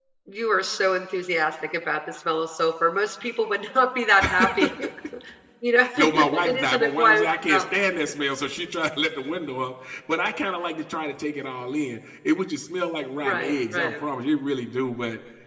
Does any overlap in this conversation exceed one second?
Yes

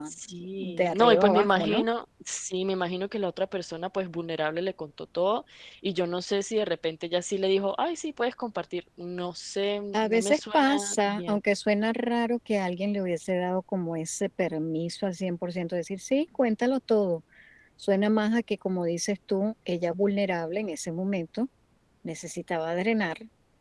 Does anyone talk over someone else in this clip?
Yes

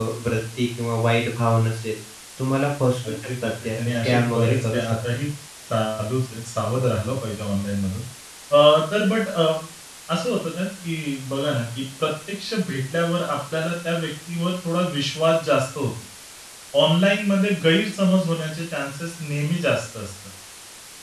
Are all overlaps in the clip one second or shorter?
No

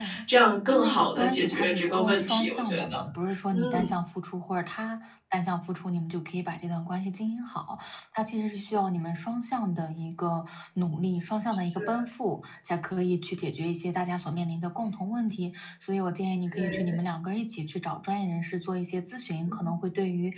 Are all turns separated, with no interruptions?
No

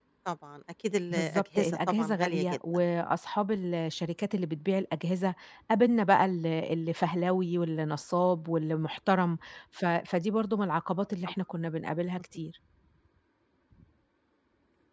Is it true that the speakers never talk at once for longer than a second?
No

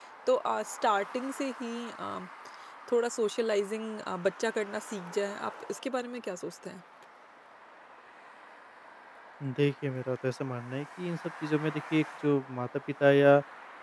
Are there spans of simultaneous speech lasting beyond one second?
No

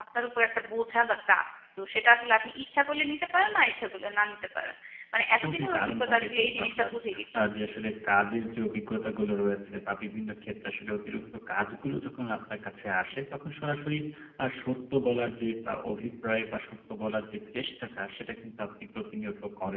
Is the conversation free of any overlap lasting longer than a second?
No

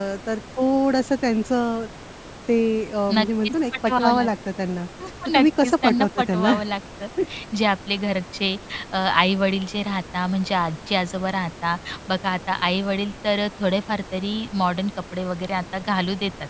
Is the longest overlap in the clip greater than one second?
Yes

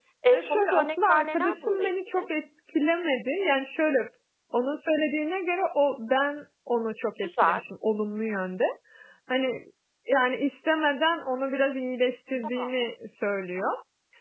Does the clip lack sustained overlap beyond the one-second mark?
No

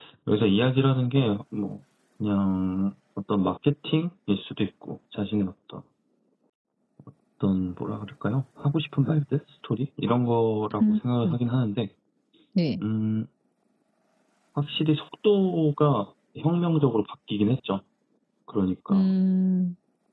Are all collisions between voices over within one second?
Yes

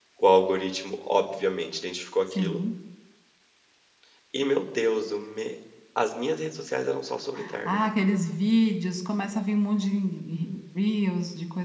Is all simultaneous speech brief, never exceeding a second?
Yes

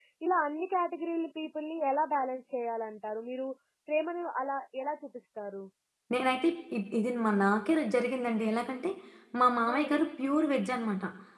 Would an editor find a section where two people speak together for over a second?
No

